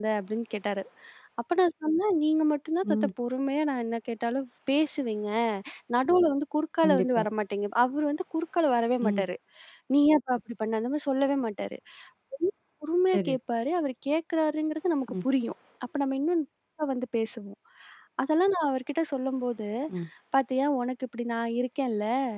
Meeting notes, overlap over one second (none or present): none